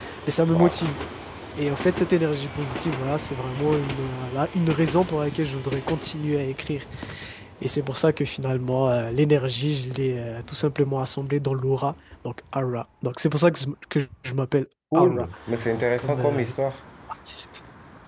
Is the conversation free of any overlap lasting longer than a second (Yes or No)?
Yes